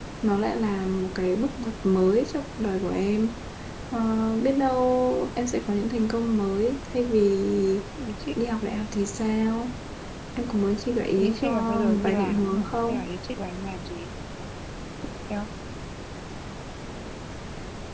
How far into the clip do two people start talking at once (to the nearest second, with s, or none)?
11 s